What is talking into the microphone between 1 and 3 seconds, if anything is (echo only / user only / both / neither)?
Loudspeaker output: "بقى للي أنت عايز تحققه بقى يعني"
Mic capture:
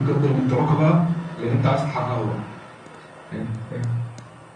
echo only